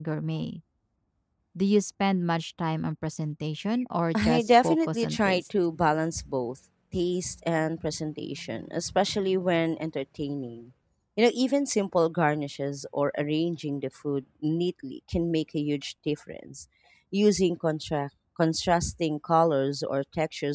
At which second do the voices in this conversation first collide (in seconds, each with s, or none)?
4.1 s